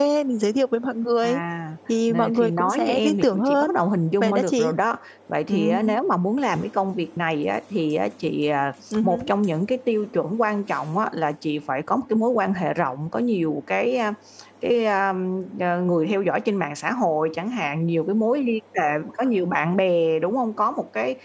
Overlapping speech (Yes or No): Yes